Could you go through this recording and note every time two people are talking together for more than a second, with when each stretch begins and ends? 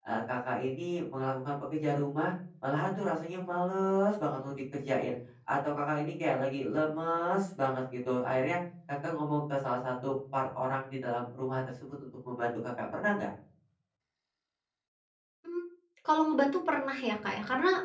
none

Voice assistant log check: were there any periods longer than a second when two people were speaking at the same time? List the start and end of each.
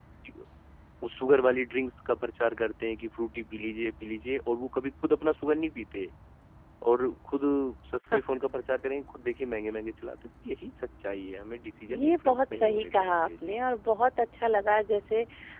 11.9-13.5

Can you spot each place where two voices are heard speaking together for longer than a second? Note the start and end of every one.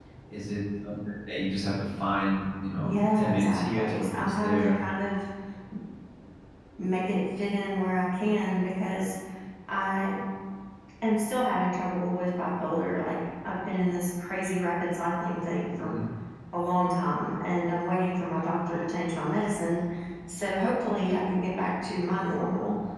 2.8-4.8

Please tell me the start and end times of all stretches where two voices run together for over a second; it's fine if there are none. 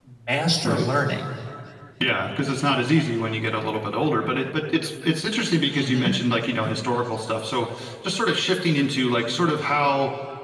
none

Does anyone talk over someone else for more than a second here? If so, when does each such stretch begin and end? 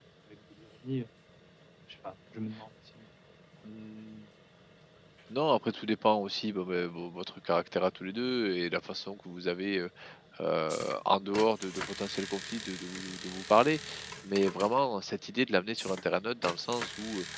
none

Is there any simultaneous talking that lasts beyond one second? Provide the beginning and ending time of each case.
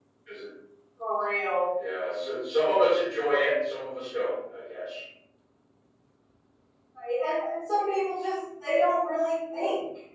none

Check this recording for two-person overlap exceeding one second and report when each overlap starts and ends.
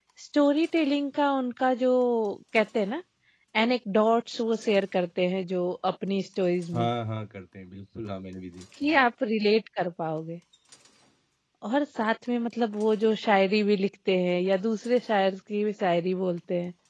none

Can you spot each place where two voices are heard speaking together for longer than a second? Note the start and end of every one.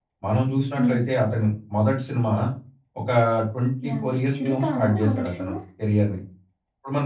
3.9-5.5

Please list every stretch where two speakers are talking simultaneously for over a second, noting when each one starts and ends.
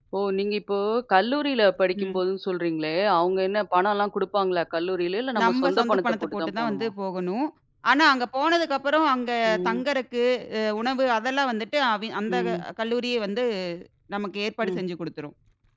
5.4-6.9

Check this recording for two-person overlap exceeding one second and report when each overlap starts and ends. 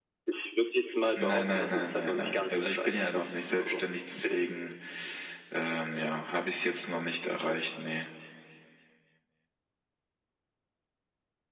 1.2-3.9

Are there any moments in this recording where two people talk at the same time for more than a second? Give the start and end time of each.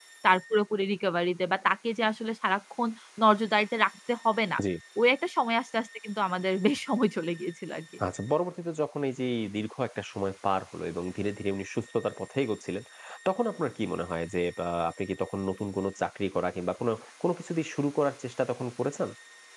none

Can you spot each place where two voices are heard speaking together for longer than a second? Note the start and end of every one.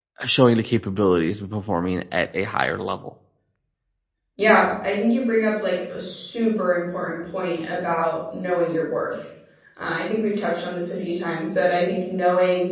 none

